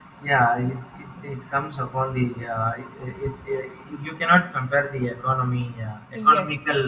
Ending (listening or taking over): listening